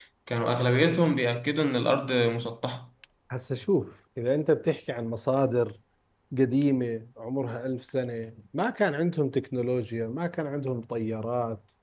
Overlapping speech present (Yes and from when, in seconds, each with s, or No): No